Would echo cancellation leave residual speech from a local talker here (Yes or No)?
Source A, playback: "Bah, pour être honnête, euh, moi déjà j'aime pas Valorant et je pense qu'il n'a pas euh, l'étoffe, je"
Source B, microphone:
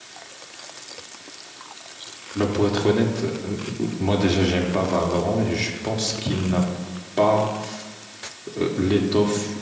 No